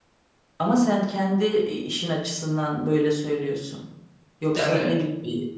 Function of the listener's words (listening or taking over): listening